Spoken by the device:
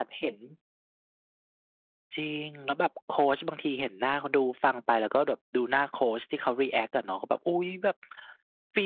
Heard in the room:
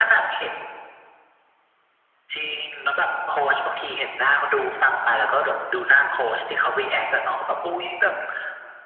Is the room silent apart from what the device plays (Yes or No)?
Yes